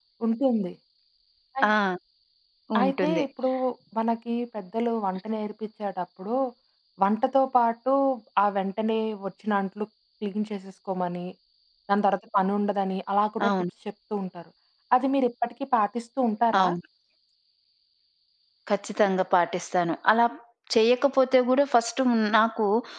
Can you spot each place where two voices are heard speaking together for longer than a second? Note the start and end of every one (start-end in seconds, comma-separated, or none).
none